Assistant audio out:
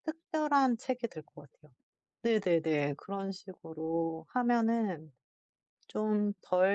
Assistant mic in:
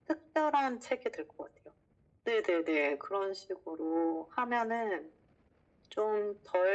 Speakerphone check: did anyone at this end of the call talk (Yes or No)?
No